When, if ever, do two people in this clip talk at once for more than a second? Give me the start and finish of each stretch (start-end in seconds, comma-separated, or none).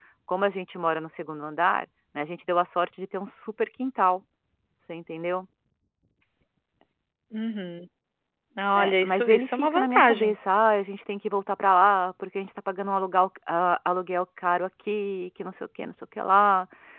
8.8-10.4